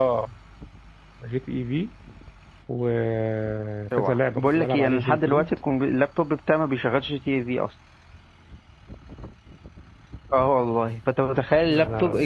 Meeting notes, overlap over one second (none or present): present